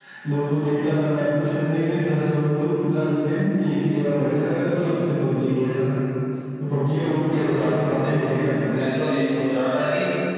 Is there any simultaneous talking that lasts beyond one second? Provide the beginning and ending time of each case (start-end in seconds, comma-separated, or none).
7.2-8.5